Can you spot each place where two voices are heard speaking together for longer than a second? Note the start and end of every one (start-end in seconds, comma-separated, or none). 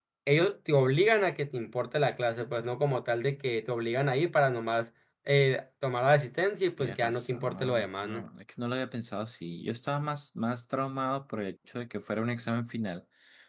6.8-8.2